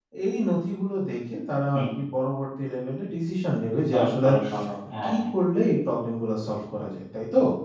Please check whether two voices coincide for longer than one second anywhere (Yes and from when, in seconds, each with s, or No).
No